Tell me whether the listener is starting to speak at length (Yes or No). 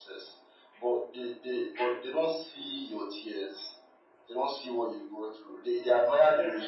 No